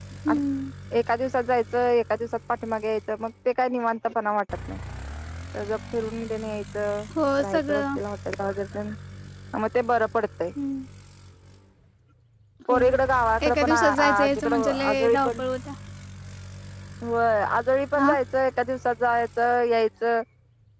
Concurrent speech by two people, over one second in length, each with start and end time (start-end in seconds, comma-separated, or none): 13.5-15.4